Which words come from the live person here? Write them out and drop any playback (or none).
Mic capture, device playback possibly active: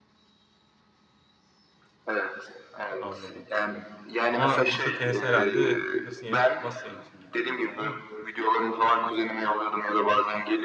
Anladım, anladım. Ama masa tenisi herhalde fitness'ın yerini tutmaz senin için gibi geliyor, değil mi?